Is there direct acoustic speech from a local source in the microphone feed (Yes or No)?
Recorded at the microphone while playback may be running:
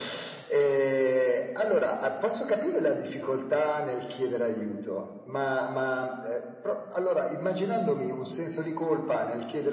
No